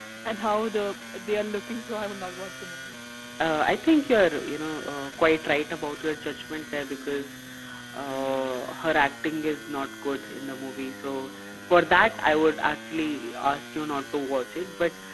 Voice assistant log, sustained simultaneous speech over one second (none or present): none